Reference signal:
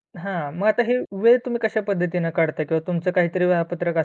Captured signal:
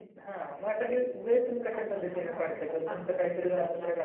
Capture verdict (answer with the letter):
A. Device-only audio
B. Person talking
B